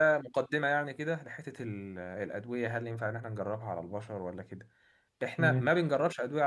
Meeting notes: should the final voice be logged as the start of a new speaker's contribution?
No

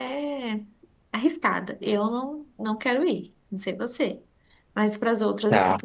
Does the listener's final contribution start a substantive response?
Yes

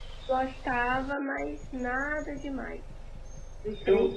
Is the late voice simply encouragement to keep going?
Yes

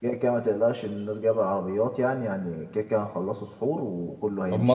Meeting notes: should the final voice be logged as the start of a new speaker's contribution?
Yes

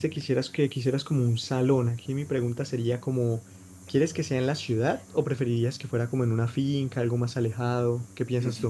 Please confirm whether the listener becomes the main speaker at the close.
Yes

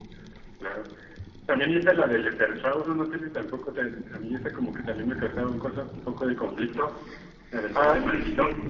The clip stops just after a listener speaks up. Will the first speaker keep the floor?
No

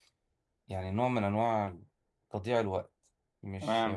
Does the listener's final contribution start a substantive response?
No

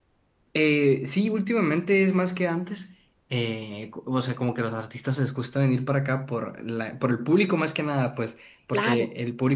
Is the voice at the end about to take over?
No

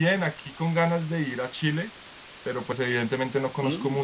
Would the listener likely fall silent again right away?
Yes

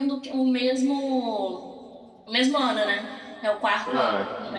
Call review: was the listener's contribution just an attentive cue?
No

